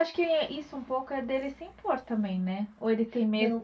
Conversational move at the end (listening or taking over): taking over